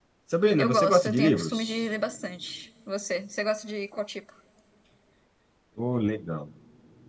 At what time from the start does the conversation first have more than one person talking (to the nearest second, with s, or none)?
1 s